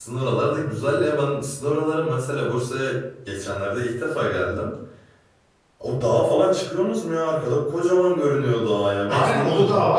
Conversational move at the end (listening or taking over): taking over